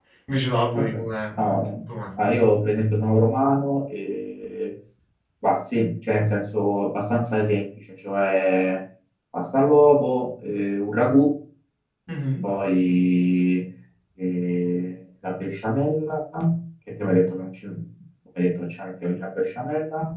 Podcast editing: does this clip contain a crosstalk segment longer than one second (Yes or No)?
No